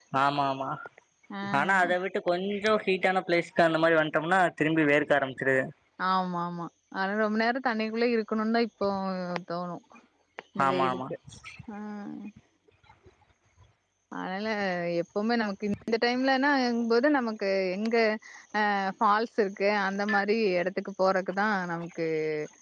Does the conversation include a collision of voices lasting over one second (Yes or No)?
No